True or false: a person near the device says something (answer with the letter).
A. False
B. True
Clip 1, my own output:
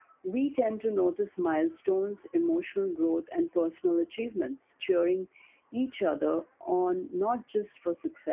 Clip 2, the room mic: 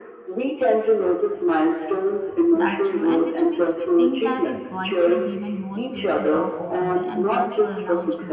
B